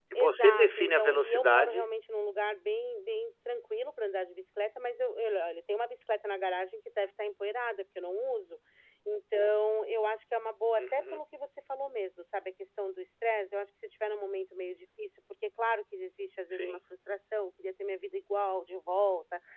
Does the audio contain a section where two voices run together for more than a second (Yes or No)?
Yes